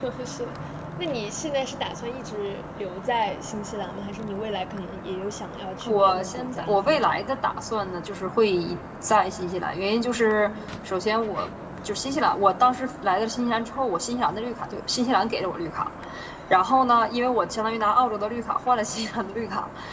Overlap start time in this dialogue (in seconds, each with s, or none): 5.8 s